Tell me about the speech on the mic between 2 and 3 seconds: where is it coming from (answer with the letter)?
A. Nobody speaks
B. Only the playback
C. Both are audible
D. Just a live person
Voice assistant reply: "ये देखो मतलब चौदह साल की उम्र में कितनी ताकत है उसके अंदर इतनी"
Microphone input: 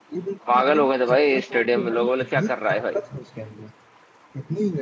C